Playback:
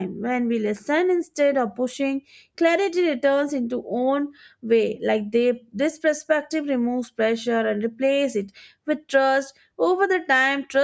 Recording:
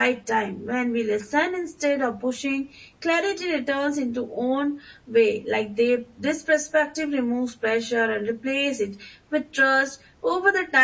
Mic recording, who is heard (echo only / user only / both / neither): echo only